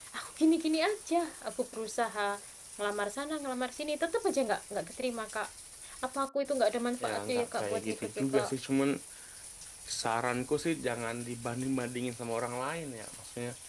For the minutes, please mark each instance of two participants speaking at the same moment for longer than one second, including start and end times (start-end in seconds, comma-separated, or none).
7.0-8.5